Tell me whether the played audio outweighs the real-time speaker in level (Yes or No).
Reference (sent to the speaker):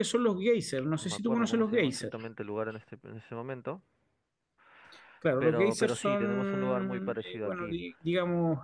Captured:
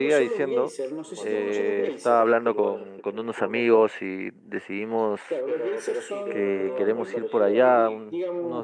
No